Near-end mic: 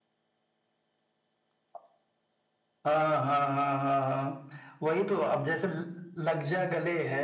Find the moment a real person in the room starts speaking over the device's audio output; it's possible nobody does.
none

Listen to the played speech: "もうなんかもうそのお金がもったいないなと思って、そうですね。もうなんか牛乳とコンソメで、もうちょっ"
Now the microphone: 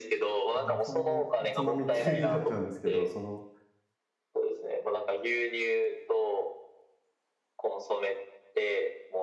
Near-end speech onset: 1 s

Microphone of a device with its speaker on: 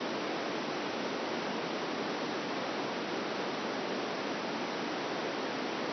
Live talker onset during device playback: none

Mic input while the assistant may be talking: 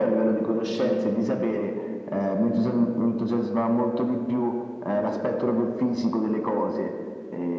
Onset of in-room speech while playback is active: none

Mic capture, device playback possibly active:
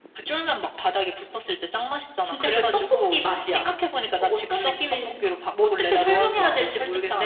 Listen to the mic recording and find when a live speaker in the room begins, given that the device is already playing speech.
2 s

